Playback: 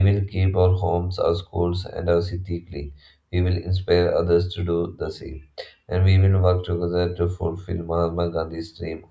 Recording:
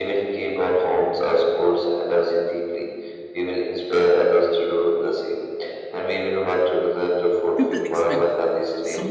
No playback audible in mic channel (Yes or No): No